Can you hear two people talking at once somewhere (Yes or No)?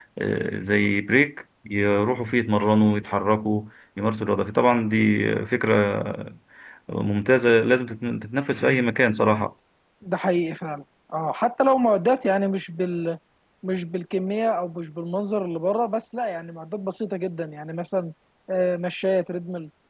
No